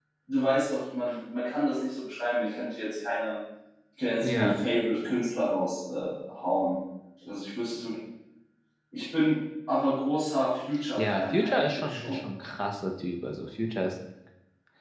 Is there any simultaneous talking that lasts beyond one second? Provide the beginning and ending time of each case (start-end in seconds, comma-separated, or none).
11.0-12.2